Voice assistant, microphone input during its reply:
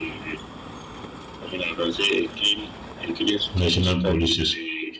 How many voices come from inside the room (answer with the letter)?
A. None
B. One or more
B